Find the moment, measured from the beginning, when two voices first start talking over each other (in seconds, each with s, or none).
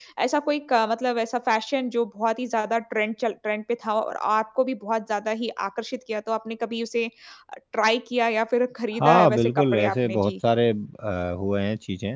9.0 s